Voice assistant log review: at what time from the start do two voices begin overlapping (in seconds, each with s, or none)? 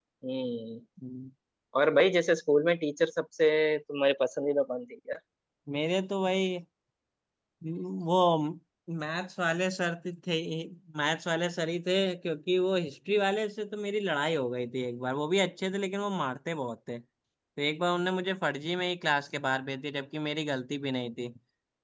none